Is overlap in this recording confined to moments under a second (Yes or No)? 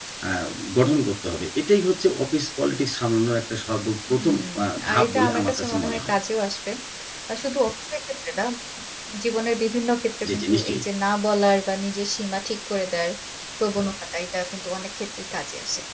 No